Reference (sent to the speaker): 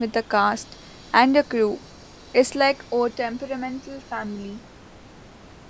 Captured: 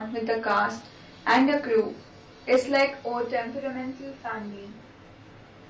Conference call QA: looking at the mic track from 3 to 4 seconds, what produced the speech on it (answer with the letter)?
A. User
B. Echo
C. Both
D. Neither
B